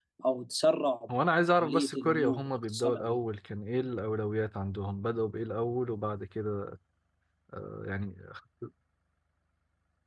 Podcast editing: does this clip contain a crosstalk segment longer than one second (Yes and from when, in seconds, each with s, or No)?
Yes, from 1.5 s